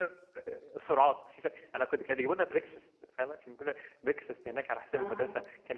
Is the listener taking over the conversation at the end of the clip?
No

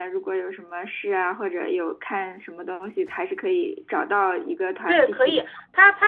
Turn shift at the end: Yes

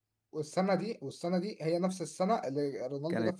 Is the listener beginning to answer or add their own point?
Yes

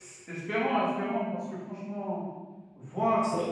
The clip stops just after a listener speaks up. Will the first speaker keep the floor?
Yes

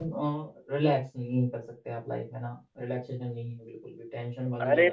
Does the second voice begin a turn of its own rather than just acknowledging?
Yes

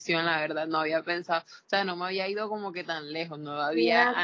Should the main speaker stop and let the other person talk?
Yes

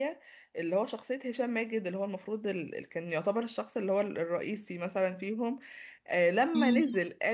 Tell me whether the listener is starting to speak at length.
No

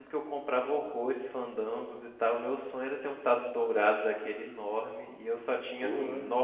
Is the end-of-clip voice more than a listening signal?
No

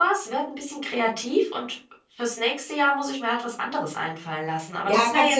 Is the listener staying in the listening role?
No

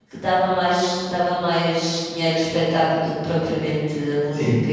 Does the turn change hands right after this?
Yes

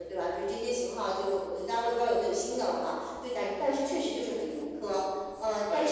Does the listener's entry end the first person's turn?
No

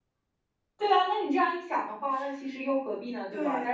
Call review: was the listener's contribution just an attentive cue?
No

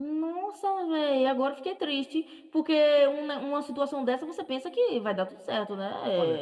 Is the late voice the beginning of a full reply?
Yes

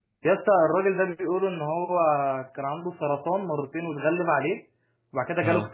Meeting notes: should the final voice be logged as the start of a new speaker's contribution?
No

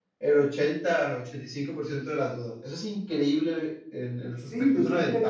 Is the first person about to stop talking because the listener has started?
Yes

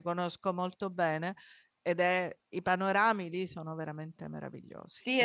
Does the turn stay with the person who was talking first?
No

